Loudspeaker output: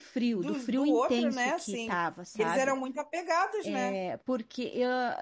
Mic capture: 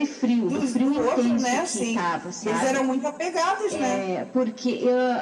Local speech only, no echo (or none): none